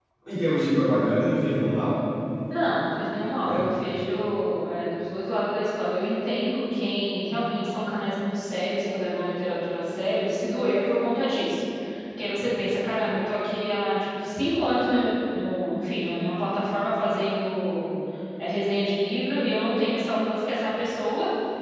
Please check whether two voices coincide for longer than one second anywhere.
No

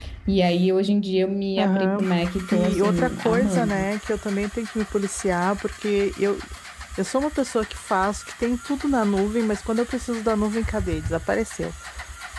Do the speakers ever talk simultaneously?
Yes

